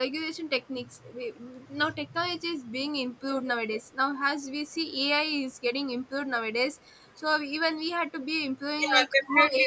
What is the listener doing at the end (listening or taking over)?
taking over